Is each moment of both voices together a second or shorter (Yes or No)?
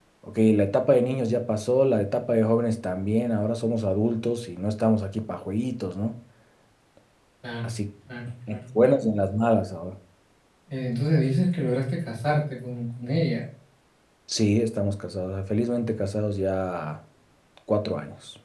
Yes